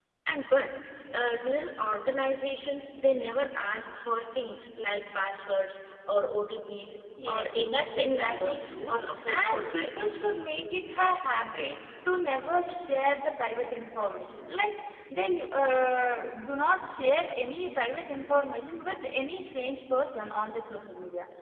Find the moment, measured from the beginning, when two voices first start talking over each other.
7.2 s

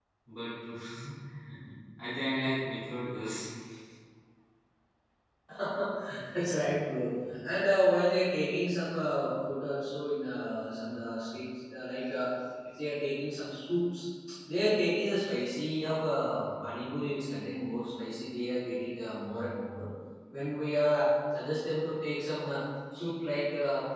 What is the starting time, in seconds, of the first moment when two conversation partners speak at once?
none

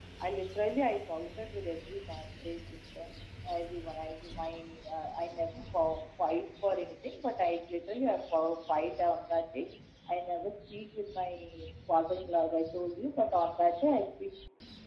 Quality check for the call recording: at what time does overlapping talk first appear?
none

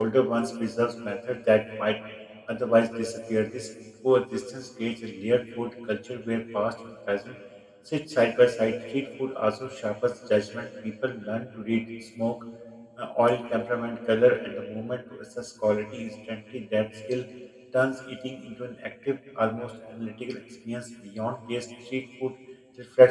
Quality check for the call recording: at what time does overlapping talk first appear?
none

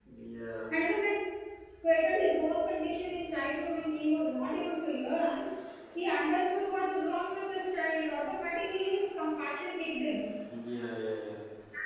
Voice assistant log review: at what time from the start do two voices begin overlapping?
none

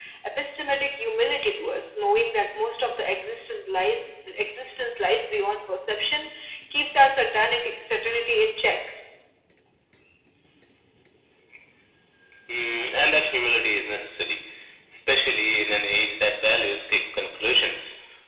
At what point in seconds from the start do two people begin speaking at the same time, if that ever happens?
none

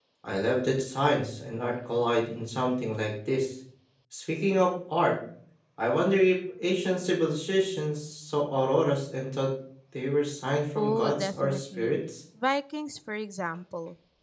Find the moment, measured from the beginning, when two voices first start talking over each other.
10.8 s

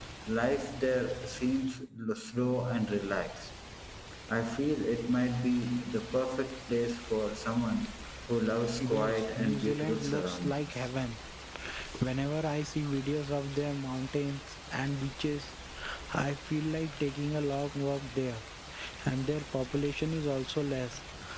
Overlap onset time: 8.8 s

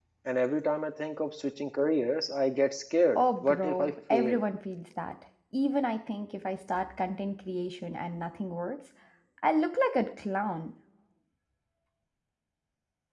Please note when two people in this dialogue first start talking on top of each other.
3.2 s

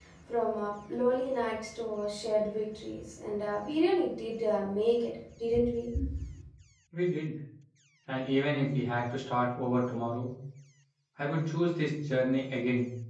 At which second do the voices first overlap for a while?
none

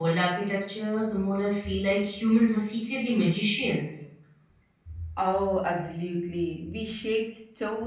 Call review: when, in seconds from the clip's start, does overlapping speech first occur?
none

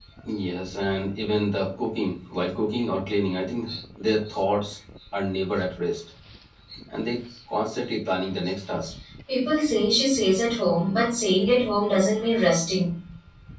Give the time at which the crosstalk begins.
none

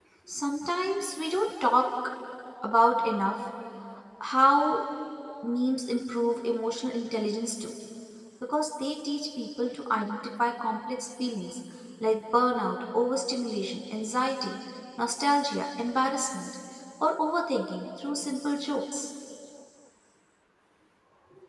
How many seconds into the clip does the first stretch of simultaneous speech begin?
none

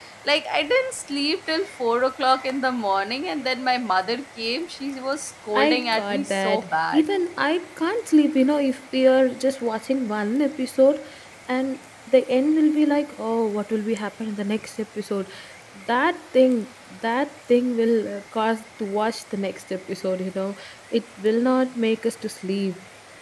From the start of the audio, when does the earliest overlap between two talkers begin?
5.5 s

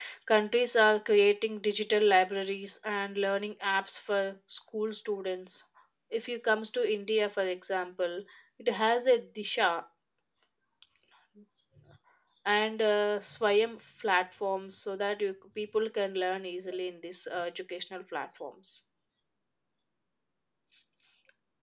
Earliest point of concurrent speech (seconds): none

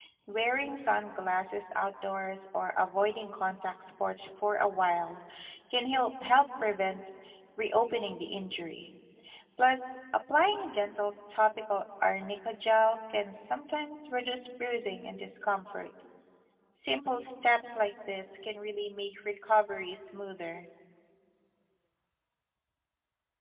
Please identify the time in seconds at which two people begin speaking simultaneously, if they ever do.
none

